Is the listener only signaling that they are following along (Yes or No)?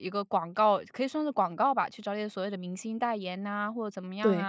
Yes